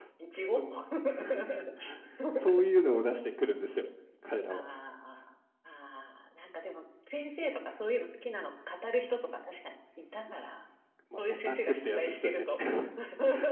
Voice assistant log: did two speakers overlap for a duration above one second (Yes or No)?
Yes